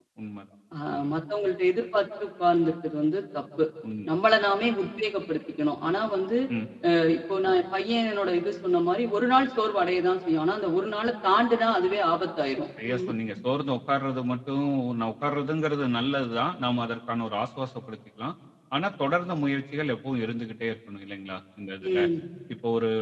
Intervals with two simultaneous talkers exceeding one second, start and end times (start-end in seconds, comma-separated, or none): none